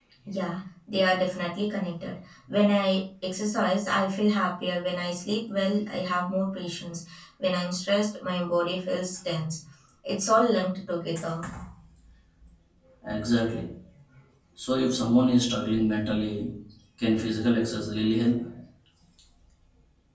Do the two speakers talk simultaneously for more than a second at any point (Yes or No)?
No